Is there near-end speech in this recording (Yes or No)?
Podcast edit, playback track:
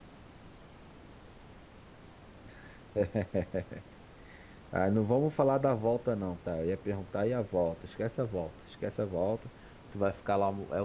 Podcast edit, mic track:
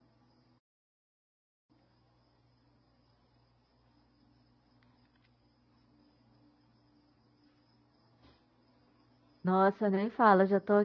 Yes